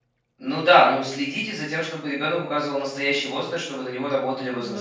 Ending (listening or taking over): taking over